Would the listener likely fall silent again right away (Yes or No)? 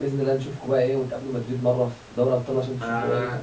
No